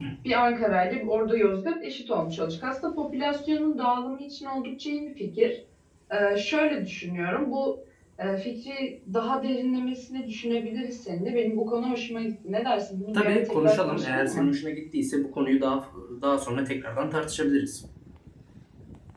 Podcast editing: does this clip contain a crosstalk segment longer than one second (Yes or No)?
Yes